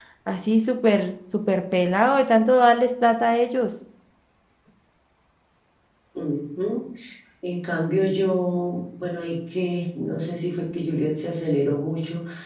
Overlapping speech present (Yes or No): No